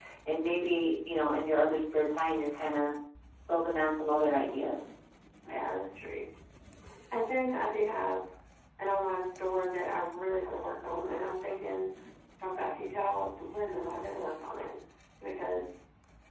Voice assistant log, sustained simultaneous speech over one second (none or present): none